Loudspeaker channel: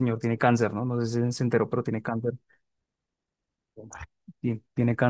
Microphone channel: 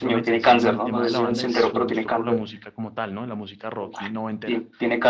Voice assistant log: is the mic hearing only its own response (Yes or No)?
No